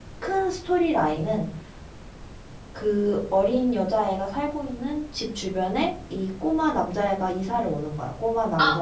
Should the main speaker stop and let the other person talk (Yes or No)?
Yes